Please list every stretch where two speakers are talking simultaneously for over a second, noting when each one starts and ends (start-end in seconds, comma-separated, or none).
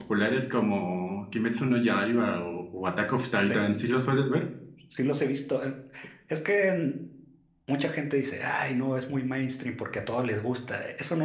none